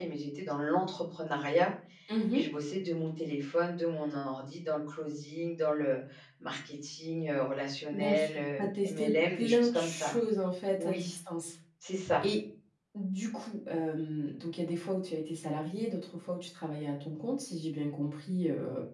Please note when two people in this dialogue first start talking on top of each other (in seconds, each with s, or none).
7.9 s